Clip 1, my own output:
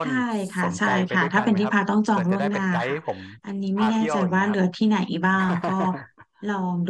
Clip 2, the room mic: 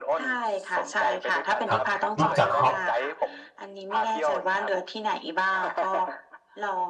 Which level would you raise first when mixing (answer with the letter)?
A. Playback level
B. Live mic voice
A